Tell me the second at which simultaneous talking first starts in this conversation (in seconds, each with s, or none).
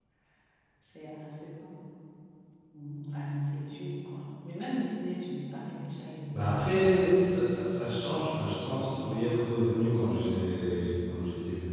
6.3 s